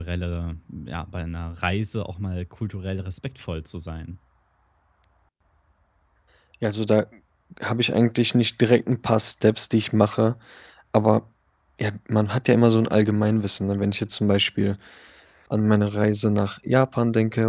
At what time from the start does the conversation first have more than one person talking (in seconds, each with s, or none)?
none